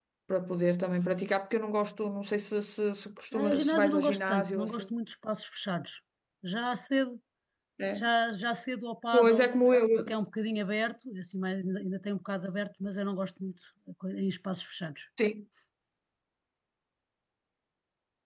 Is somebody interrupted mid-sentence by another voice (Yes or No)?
Yes